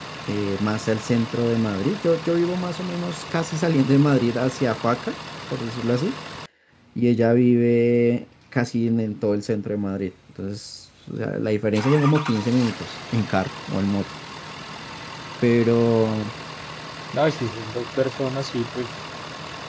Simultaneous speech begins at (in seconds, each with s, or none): none